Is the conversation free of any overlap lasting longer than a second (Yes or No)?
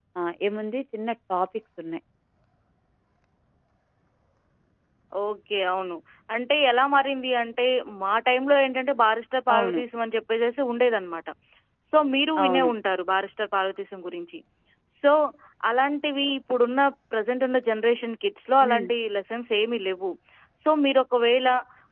Yes